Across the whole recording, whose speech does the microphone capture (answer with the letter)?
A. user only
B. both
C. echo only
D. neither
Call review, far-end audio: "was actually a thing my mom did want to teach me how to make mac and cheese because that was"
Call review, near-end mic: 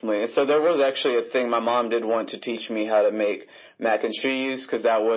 C